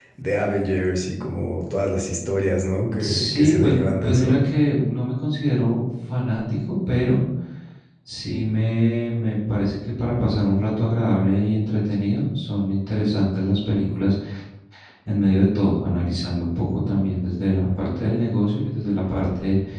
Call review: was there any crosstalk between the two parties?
Yes, from 2.9 s

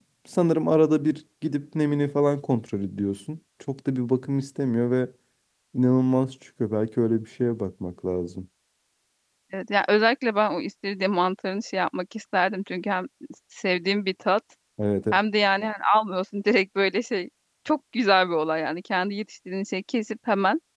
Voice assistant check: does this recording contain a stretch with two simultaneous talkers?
No

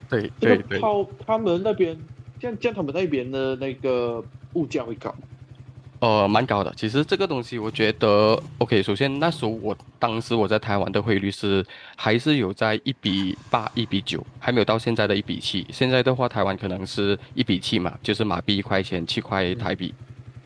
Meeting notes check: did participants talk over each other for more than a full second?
No

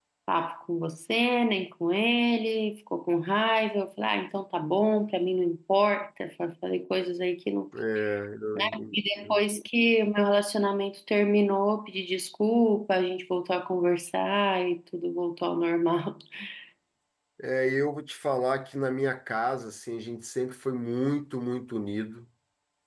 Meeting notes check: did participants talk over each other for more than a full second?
No

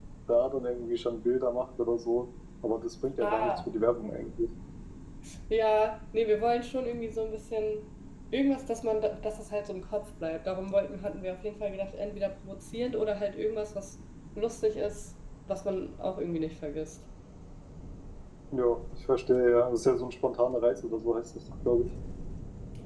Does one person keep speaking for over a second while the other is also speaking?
No

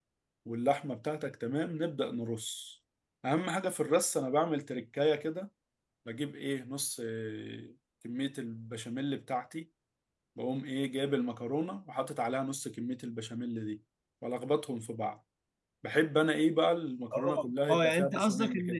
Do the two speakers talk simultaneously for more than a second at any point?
Yes, from 17.1 s

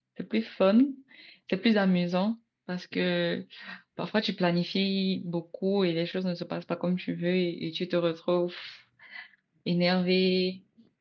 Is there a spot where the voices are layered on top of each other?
No

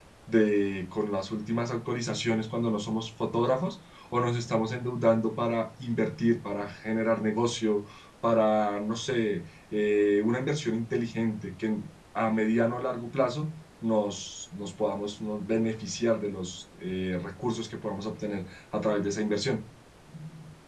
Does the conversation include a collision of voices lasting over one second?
No

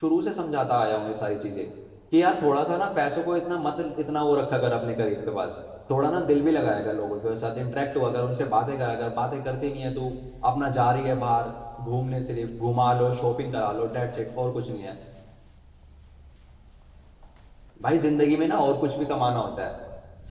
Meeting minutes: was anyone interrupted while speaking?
No

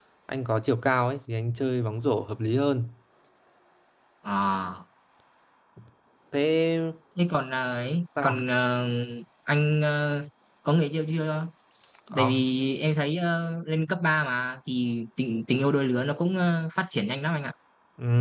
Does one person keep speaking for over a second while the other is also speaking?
No

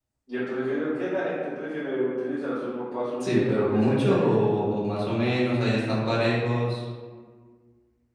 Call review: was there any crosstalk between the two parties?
Yes, from 3.2 s

